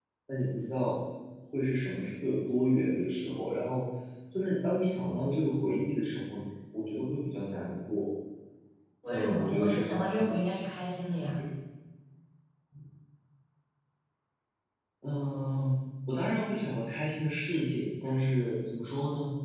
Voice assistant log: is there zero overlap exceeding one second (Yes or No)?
No